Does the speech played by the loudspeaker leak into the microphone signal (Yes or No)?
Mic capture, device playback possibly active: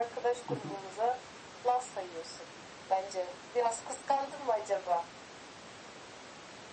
Yes